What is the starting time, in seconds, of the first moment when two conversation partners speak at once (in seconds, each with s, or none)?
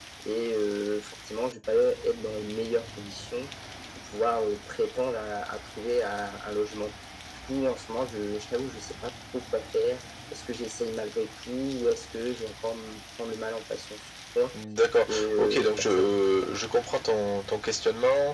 15.1 s